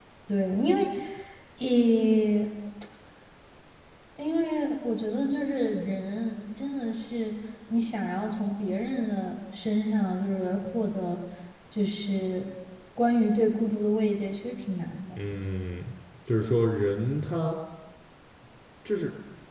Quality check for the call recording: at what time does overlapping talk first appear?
none

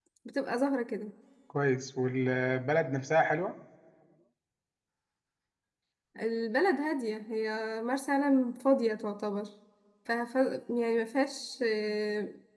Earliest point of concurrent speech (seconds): none

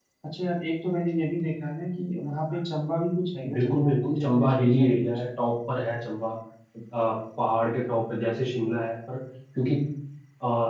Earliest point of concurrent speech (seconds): 3.5 s

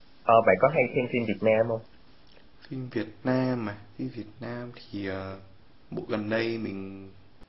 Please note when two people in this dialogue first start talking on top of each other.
none

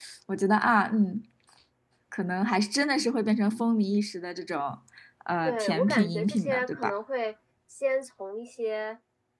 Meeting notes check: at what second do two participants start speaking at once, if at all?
5.5 s

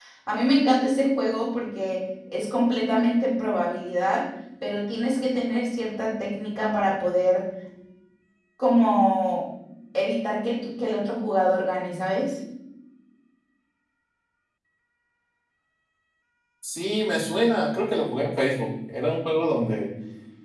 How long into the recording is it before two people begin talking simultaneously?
none

